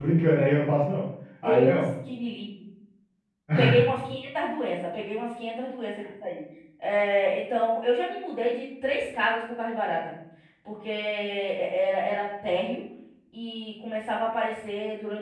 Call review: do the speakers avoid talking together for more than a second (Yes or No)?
Yes